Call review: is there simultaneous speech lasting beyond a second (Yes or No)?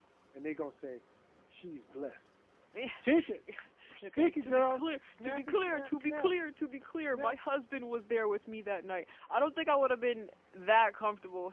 Yes